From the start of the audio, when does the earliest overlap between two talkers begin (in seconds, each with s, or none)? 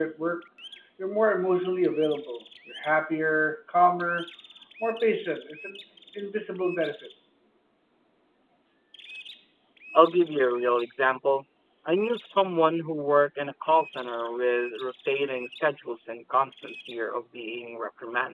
none